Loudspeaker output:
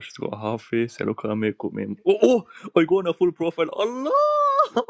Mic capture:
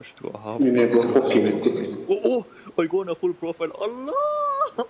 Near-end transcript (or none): Inebro Foki Nite.